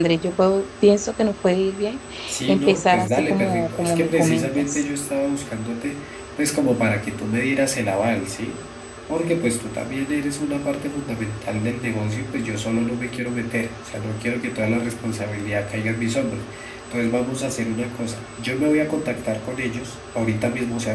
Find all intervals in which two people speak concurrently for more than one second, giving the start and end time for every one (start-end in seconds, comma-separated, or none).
2.5-4.8